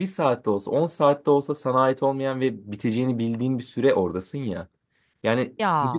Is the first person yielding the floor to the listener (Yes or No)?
No